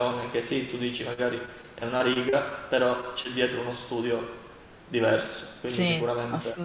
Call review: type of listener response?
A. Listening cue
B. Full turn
B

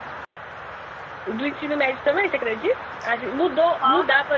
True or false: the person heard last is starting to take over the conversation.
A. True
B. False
B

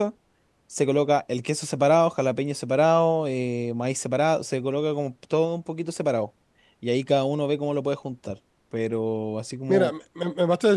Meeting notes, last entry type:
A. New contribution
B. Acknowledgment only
A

